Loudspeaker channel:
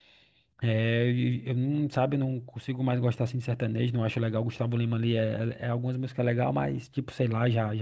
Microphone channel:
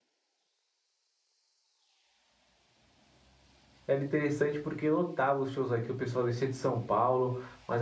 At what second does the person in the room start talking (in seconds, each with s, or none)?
3.9 s